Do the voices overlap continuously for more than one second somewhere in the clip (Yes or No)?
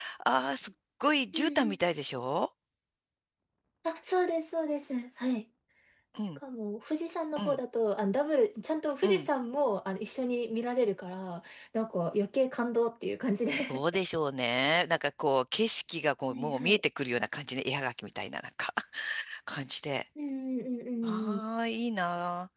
No